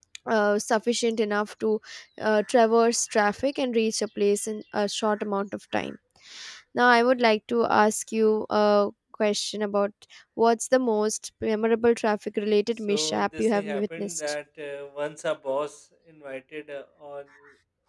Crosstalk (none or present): present